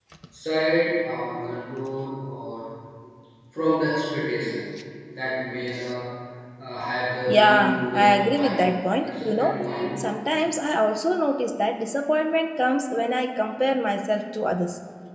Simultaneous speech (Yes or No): Yes